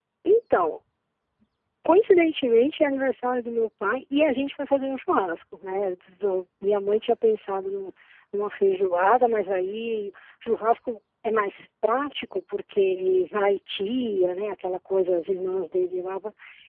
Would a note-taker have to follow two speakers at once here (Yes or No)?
No